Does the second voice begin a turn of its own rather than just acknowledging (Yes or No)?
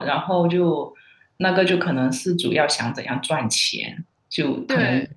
No